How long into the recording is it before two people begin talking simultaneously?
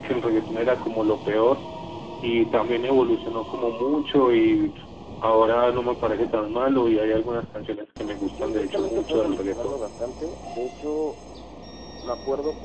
8.4 s

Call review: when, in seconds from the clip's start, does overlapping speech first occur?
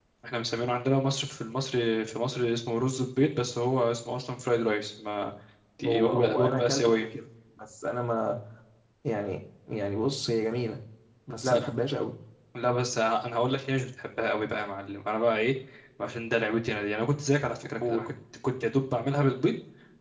5.8 s

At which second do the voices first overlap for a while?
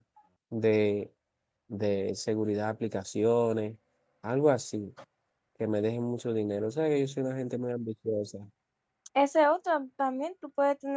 none

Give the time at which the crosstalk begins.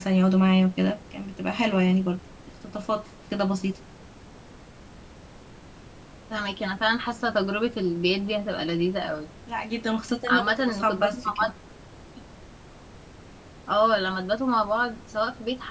10.3 s

